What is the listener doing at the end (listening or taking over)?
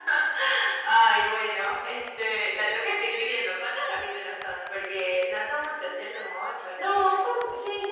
taking over